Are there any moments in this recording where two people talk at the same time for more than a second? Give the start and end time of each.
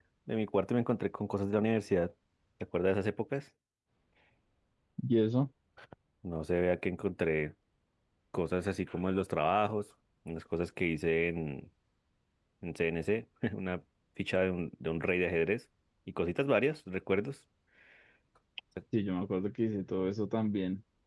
none

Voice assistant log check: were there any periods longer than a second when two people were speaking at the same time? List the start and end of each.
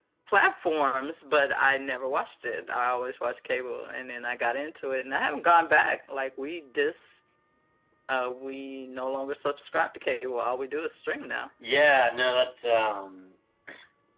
none

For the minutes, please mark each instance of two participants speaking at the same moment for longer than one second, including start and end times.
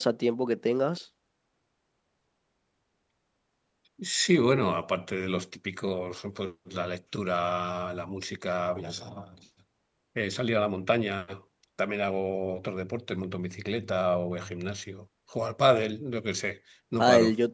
none

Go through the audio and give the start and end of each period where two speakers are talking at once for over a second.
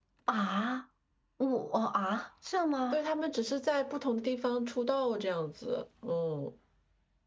none

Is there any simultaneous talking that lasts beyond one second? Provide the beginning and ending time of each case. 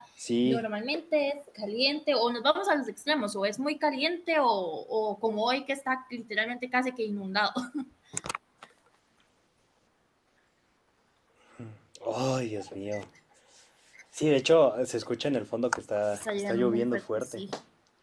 16.1-17.4

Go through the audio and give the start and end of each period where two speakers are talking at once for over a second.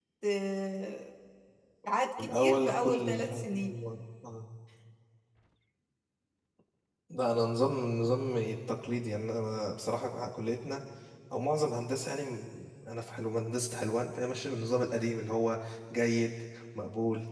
2.2-3.7

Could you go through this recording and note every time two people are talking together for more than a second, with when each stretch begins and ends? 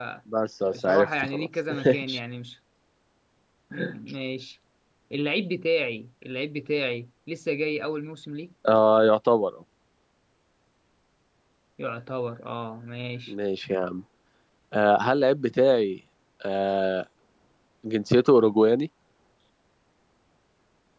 0.7-2.2

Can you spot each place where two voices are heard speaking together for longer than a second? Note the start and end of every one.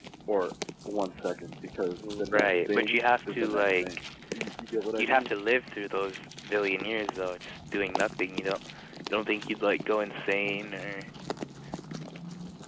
2.3-4.0

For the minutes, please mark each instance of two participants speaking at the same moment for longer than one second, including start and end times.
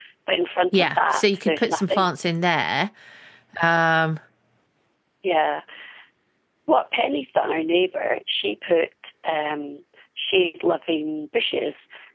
0.7-2.1

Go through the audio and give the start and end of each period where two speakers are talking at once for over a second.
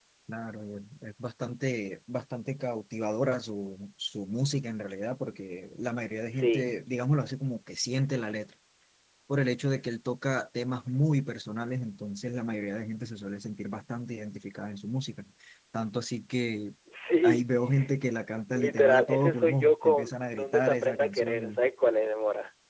18.5-21.6

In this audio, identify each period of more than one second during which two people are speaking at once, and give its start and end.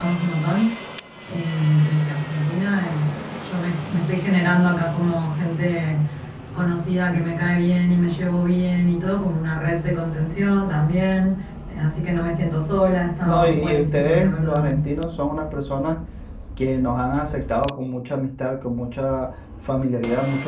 13.2-14.7

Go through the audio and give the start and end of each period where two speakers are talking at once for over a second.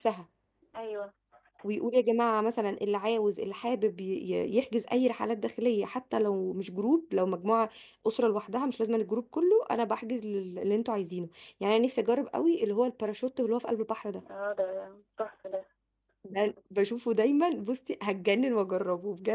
none

